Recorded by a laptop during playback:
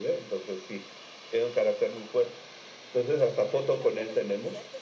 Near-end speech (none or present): present